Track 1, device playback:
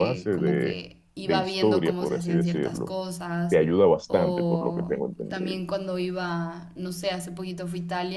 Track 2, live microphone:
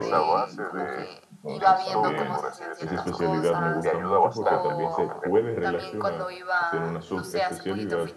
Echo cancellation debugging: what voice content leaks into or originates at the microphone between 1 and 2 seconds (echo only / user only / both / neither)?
both